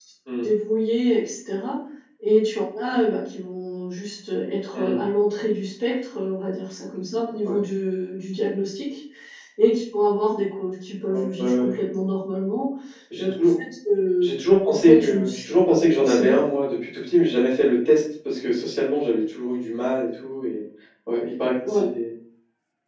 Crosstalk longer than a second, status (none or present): present